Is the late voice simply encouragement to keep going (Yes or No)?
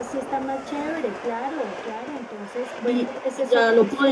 No